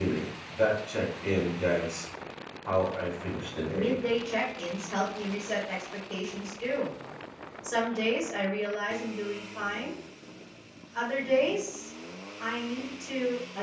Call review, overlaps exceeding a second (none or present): none